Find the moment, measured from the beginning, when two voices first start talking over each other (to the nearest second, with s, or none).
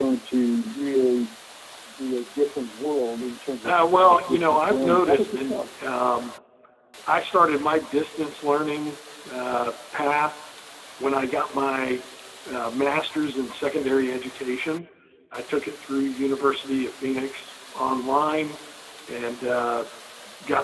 4 s